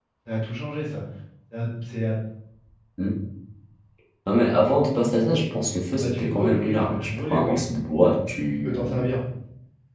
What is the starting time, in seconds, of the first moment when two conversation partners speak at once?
5.9 s

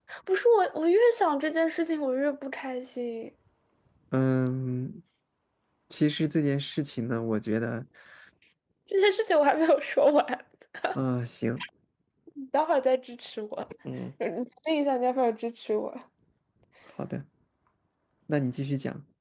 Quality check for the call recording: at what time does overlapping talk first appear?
none

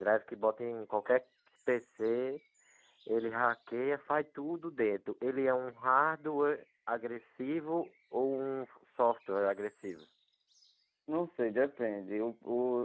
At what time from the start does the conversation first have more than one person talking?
none

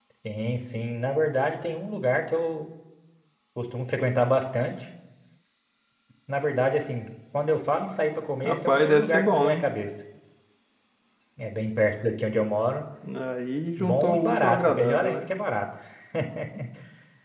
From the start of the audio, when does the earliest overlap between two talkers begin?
8.4 s

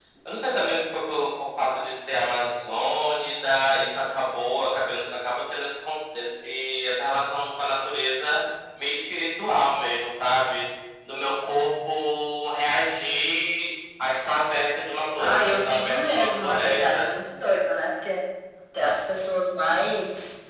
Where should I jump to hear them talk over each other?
15.2 s

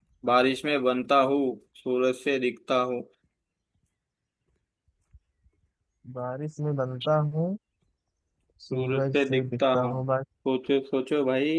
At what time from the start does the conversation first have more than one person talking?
8.7 s

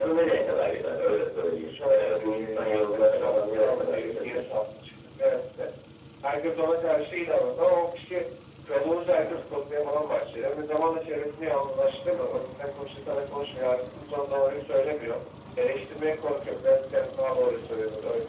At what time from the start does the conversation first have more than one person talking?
1.7 s

